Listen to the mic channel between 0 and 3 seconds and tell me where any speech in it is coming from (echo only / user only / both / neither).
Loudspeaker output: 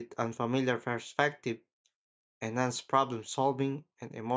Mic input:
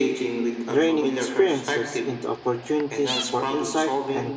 both